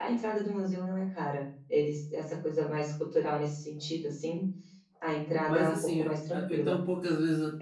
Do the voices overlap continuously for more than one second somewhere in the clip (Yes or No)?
Yes